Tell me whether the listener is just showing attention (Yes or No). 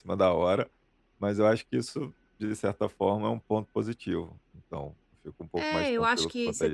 No